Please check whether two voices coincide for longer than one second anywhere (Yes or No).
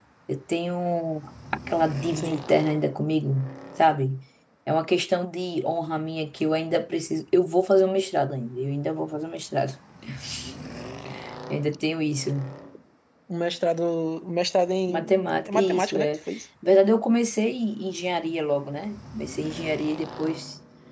Yes